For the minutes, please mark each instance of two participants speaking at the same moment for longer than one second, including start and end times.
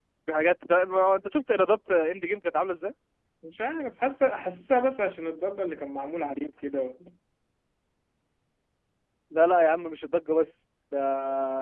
none

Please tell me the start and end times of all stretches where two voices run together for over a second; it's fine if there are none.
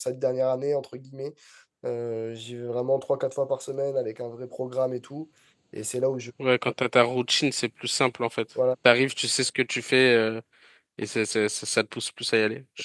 none

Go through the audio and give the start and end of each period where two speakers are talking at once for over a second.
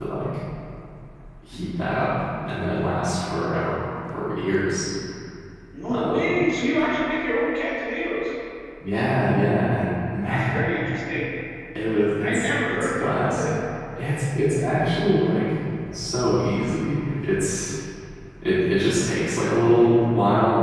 12.2-13.5

